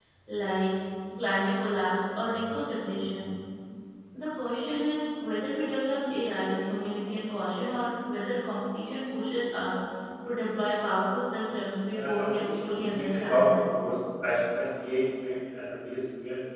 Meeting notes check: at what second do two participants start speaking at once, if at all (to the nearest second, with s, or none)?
12 s